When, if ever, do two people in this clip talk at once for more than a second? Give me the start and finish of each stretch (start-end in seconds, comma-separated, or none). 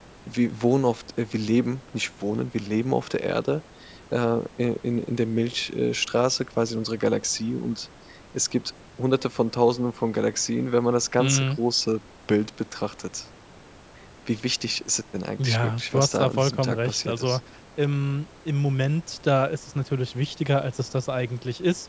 15.4-17.4